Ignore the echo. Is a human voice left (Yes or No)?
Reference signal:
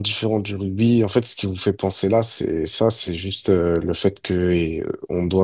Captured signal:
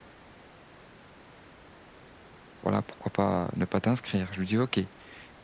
Yes